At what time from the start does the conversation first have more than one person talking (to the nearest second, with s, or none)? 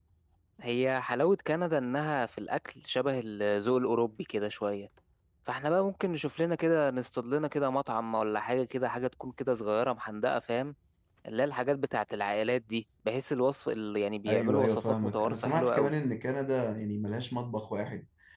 14 s